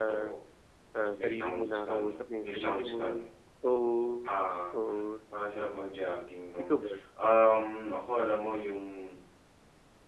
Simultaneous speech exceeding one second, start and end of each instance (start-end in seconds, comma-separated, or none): 1.0-3.0